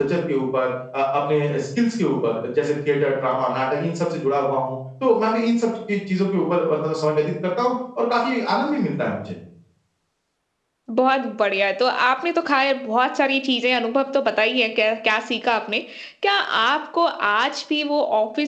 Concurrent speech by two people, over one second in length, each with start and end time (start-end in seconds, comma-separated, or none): none